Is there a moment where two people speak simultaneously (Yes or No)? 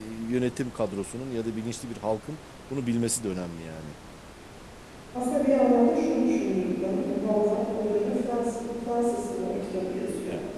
No